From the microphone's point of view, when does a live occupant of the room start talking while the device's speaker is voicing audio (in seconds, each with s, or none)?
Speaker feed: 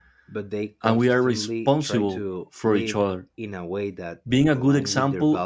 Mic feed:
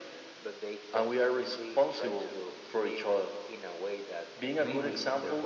4.5 s